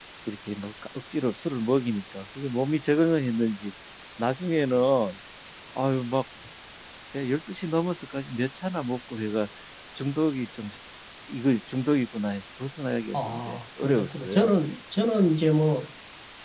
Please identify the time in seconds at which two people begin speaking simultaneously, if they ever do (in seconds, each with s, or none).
13.1 s